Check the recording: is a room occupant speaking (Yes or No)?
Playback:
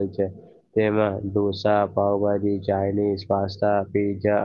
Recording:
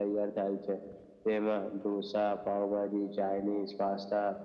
No